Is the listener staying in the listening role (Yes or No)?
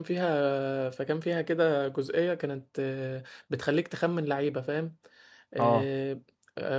Yes